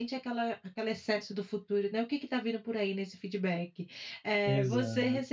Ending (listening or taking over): listening